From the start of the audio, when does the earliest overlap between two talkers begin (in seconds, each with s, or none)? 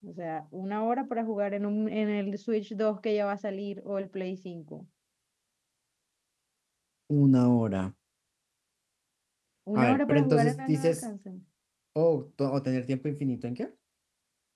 9.8 s